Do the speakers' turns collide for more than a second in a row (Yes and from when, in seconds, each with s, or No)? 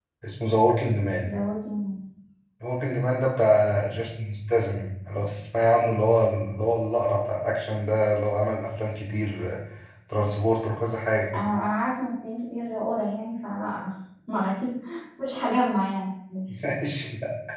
No